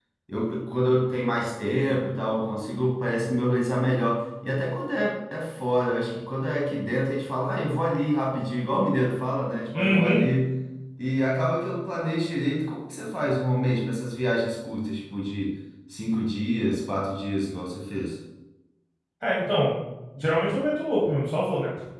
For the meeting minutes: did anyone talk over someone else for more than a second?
No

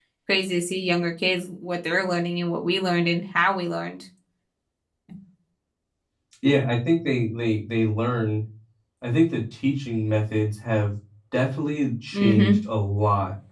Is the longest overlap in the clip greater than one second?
No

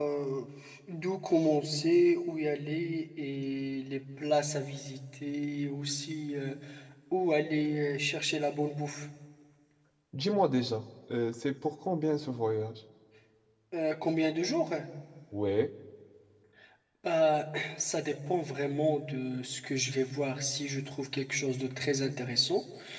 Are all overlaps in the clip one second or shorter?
Yes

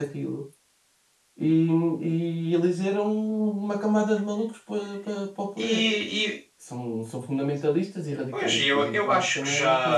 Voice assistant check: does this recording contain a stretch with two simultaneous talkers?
Yes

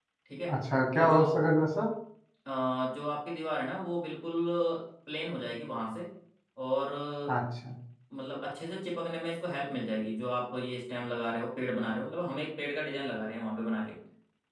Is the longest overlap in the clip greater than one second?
No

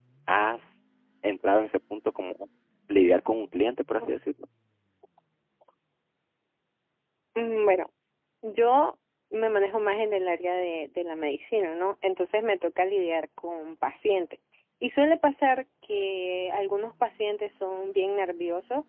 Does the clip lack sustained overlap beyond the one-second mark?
Yes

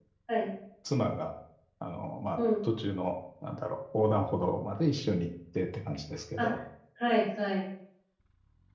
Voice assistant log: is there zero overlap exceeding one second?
Yes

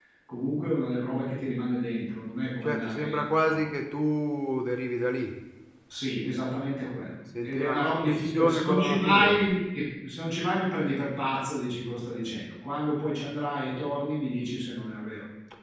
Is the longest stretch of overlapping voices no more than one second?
No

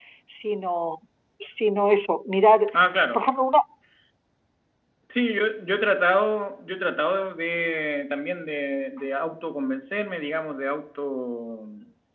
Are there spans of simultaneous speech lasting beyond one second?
No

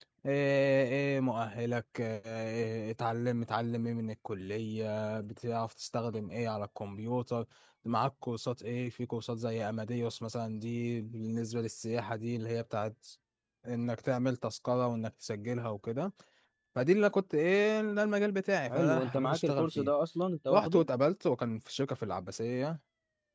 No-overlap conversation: No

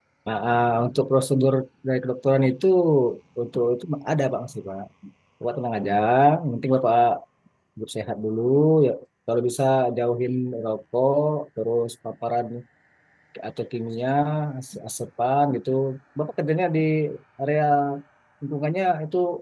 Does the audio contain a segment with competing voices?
No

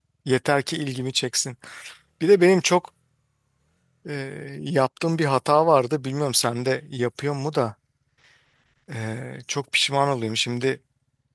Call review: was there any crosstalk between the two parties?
No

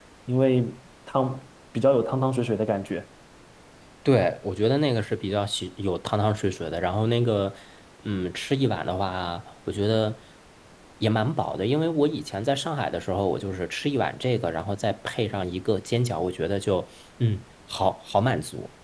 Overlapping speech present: No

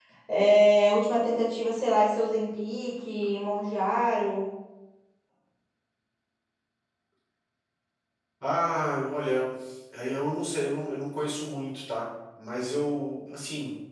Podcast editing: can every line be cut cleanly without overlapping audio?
Yes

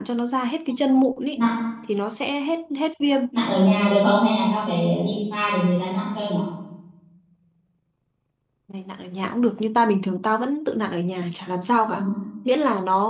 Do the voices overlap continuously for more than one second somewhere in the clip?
No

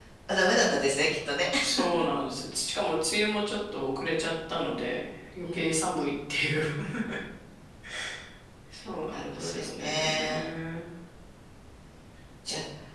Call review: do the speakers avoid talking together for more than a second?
No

